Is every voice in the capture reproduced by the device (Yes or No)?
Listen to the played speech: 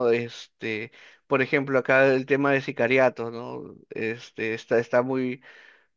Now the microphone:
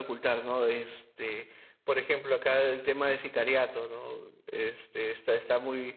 Yes